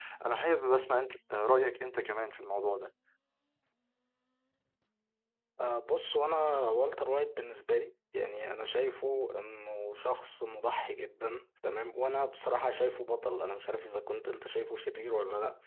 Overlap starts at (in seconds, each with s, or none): none